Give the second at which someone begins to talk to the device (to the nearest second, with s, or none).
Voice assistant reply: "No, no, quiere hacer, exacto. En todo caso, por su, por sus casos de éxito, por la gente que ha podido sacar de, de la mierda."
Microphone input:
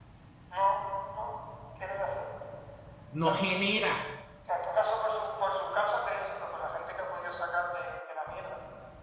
3 s